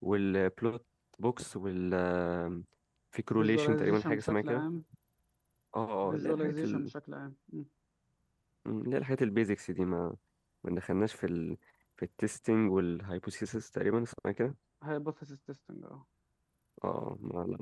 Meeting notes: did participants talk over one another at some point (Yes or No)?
Yes